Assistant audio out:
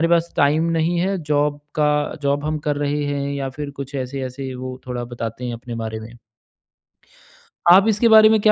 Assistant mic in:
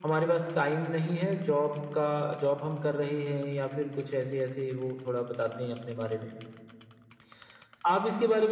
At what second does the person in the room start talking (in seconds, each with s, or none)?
none